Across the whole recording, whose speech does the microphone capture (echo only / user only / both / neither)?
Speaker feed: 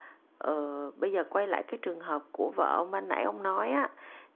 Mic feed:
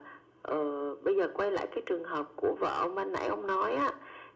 echo only